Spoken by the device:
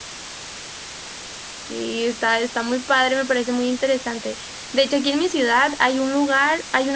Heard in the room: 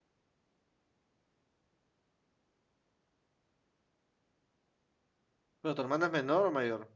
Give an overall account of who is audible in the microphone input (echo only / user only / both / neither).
user only